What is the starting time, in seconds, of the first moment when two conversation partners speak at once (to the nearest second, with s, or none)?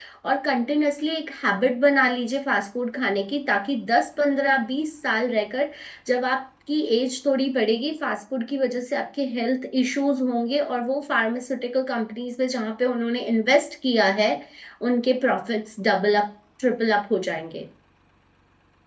none